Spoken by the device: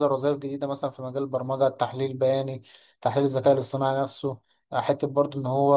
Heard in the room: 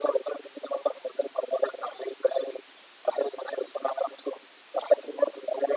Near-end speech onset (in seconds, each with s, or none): none